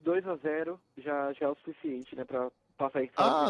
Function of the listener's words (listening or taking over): taking over